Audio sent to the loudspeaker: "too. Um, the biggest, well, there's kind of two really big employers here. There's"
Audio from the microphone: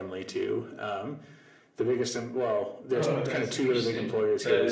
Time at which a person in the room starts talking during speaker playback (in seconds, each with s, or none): 2.9 s